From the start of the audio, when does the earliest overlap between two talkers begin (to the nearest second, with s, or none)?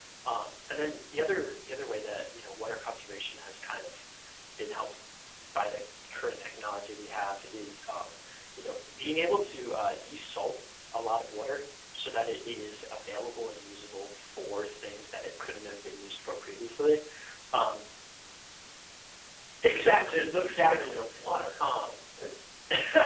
20 s